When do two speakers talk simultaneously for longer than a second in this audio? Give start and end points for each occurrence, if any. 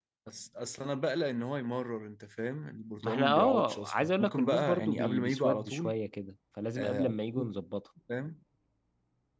3.0-5.9

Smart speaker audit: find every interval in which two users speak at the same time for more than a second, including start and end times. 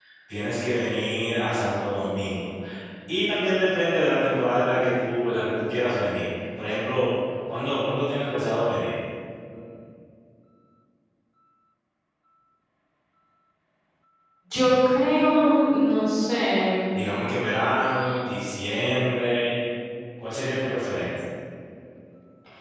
none

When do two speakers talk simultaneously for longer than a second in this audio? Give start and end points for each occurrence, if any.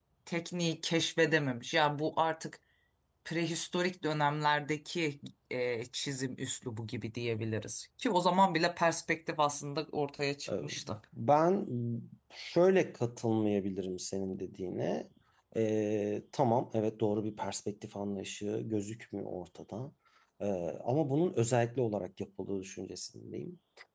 none

